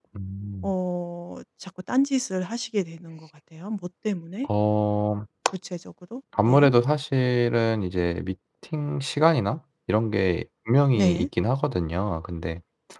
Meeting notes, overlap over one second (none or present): none